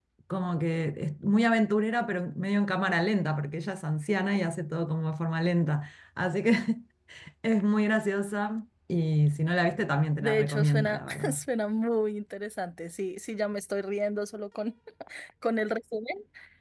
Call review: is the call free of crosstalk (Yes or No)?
No